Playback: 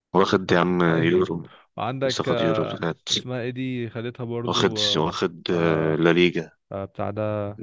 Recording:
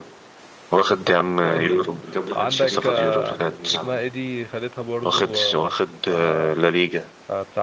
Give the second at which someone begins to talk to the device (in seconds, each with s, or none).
1.4 s